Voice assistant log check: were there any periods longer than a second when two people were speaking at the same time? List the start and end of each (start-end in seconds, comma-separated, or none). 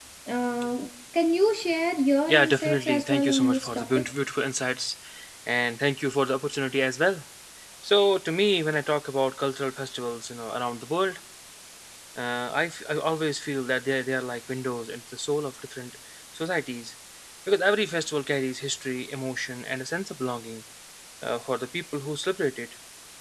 2.3-4.0